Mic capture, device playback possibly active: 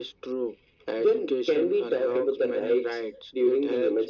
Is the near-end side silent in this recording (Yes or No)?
Yes